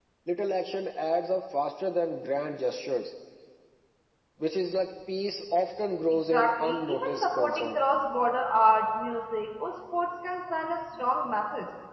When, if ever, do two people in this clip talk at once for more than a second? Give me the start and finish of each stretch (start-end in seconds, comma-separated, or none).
6.3-7.8